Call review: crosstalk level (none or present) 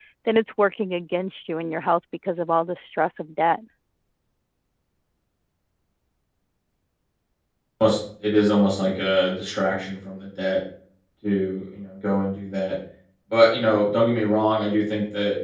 none